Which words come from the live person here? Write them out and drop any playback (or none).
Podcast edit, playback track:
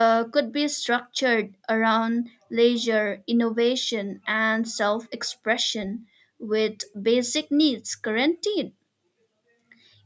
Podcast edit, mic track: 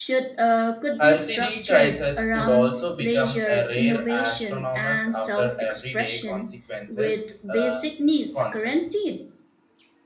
Healthy crisis could also become a rare astronomers after everyday consequences uh, concepts.